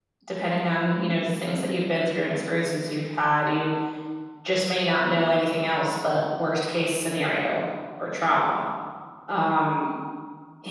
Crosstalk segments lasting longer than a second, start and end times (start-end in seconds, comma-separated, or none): none